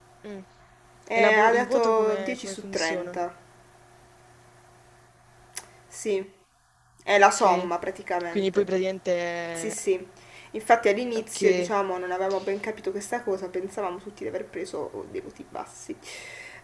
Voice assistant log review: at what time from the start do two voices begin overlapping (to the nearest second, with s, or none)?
1 s